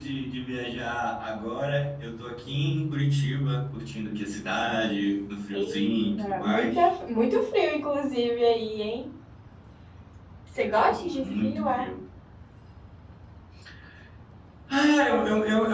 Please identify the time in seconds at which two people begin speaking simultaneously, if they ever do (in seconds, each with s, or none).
5.5 s